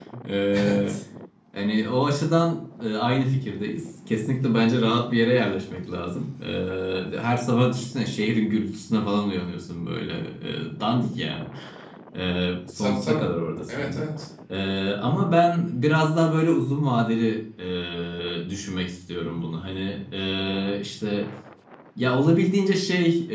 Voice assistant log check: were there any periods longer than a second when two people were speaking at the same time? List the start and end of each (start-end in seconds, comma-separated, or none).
none